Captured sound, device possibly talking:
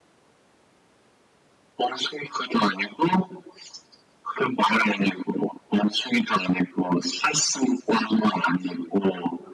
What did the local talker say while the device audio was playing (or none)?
none